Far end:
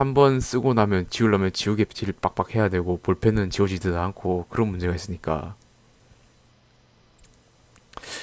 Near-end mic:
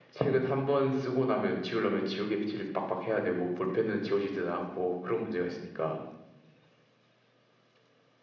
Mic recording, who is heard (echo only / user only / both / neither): echo only